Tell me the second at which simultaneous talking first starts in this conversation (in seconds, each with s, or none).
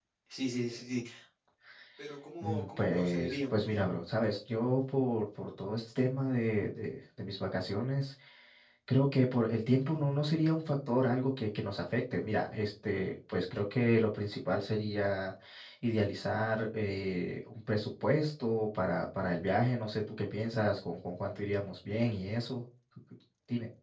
2.4 s